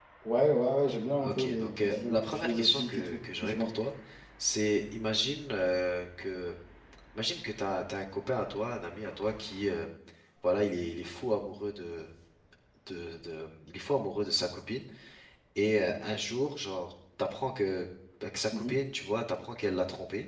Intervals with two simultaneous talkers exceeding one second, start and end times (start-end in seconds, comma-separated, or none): 1.2-3.7